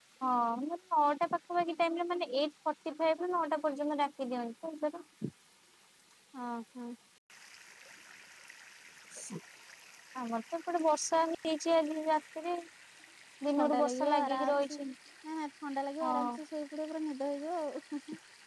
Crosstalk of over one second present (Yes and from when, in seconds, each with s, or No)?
Yes, from 13.6 s